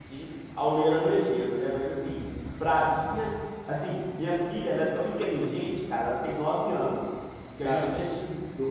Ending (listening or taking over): listening